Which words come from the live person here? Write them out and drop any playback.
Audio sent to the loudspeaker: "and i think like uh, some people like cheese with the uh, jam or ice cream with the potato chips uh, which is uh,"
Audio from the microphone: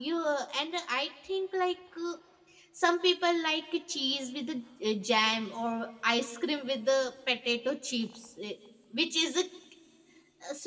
none

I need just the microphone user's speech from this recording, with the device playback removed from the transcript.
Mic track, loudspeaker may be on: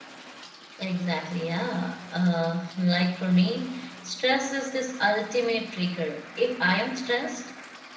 Exactly, yeah. Uh, like for me, stress is this ultimate trigger. If I am stressed,

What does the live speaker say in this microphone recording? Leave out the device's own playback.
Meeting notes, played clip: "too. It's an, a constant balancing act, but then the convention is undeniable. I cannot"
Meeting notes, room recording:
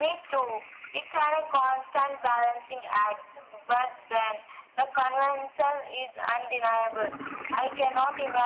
none

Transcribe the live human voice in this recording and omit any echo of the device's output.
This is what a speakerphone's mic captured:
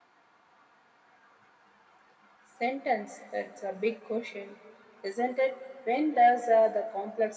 none

